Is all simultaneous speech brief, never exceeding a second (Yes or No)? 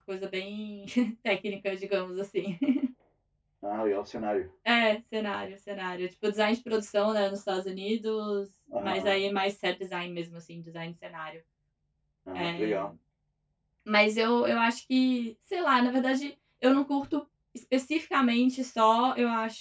Yes